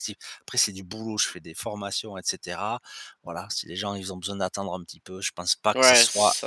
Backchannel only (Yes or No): No